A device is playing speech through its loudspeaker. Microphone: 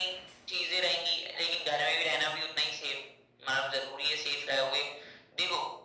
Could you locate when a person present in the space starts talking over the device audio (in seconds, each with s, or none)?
none